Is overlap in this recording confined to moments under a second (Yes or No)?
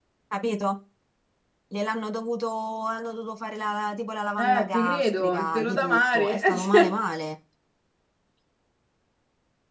No